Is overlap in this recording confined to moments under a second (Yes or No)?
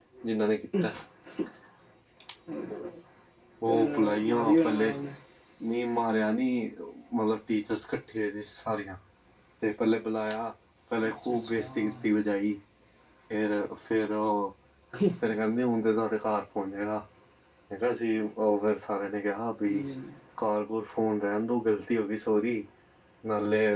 No